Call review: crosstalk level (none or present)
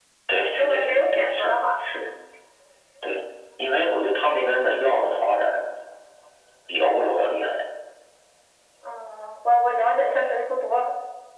present